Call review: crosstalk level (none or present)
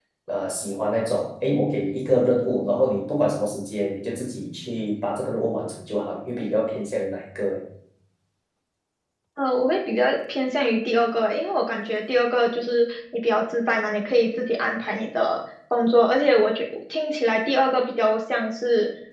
none